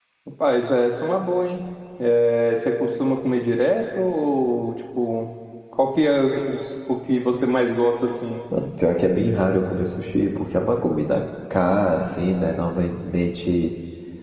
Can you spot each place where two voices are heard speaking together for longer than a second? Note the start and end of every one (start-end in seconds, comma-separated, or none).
none